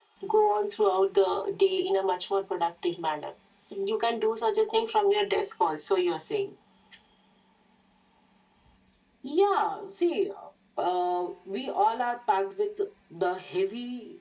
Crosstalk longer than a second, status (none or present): none